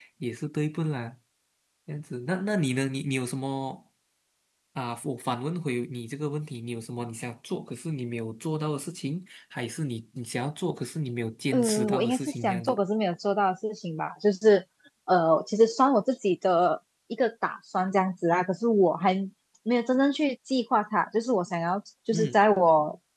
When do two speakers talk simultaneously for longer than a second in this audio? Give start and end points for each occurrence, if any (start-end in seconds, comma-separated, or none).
11.5-12.8